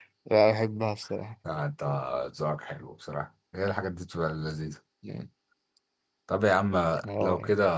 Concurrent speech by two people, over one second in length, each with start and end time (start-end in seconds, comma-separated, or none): none